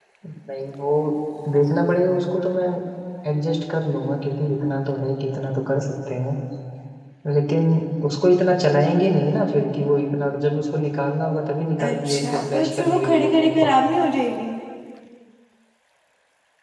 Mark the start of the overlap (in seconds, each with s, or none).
11.8 s